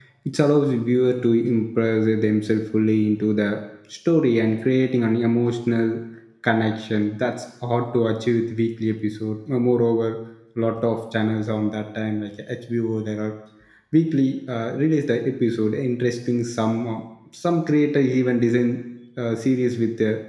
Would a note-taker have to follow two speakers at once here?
No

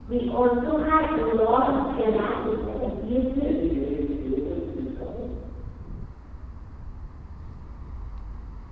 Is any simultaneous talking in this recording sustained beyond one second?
Yes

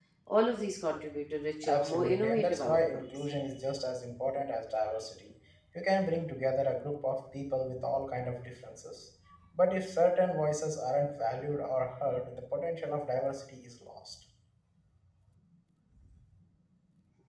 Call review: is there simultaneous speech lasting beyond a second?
Yes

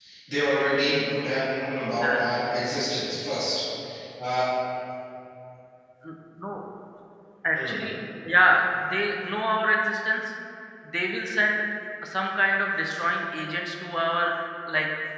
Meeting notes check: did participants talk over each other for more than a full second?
No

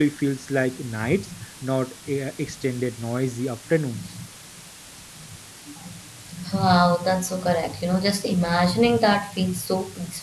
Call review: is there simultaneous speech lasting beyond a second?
No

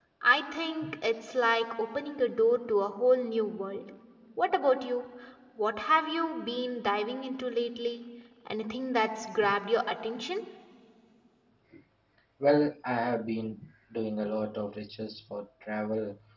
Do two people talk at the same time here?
No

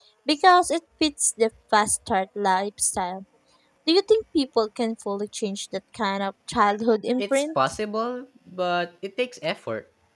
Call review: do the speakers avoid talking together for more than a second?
Yes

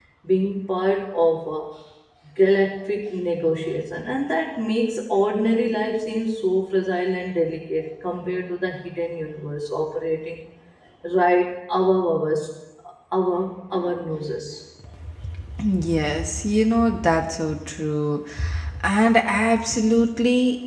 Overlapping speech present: No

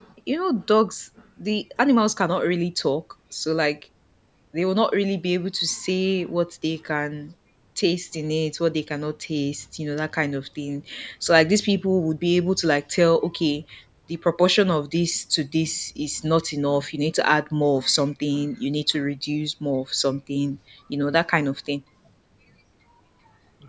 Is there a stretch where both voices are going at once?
No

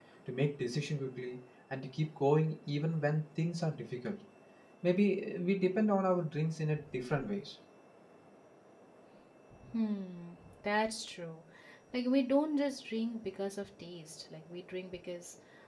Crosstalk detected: No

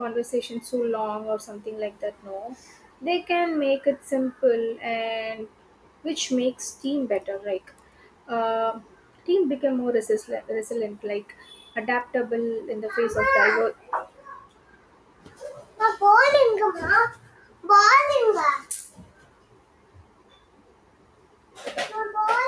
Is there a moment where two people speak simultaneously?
No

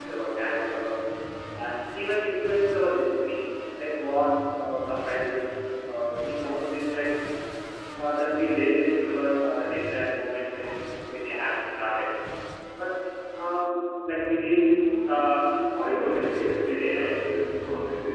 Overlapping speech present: Yes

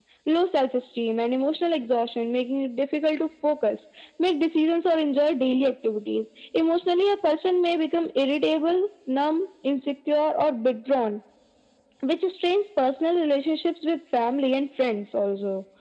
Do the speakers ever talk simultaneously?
No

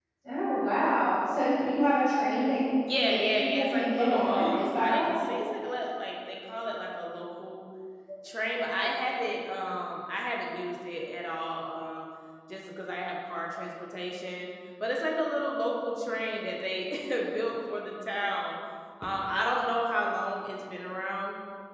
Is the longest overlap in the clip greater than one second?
Yes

